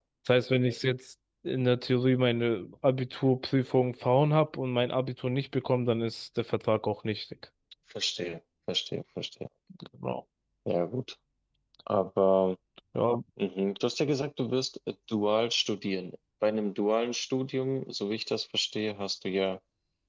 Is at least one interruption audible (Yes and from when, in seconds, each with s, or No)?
No